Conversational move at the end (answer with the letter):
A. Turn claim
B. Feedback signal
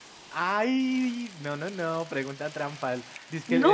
B